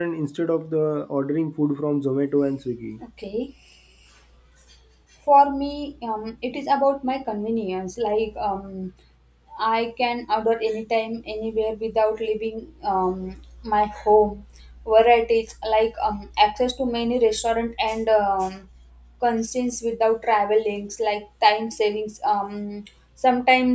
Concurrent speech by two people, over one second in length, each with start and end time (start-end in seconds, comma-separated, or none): none